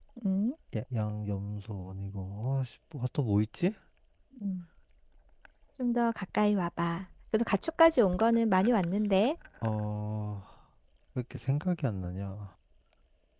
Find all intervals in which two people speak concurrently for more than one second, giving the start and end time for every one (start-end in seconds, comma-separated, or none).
none